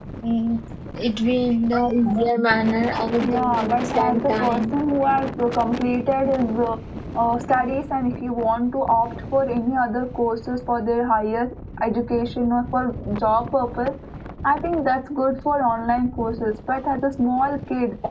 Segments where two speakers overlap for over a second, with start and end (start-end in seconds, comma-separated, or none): 3.2-4.6